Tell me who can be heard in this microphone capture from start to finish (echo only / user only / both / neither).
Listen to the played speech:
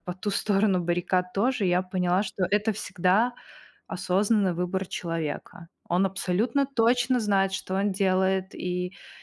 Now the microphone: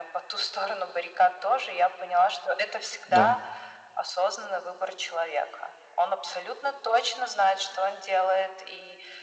both